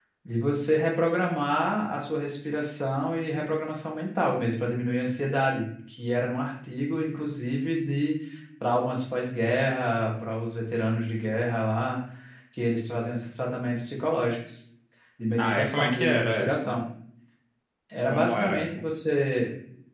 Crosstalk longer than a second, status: present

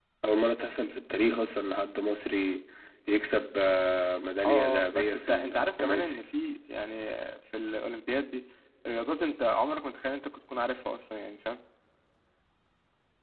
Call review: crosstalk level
present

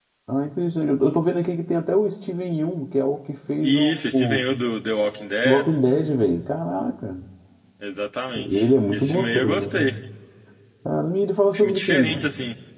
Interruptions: present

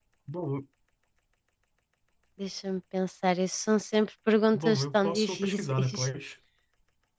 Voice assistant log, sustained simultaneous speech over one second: present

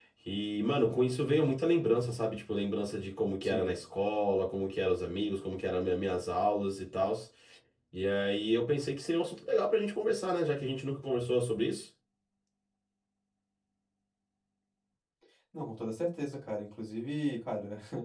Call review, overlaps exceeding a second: none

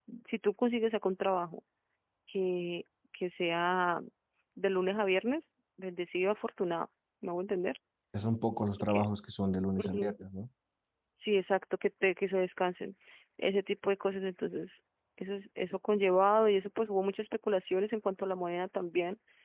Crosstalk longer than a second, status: none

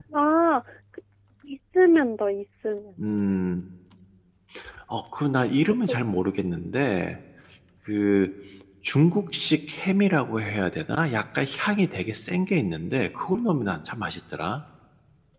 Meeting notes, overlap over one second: none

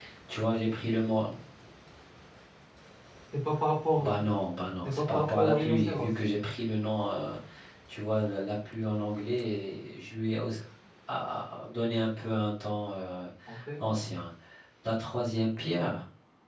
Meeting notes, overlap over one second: present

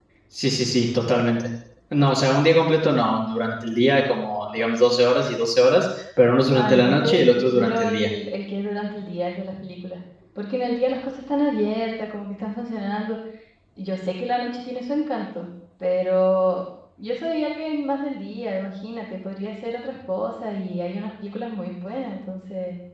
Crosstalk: present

